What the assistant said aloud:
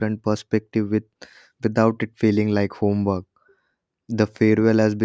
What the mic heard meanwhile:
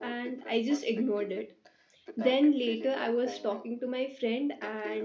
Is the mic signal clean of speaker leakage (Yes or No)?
No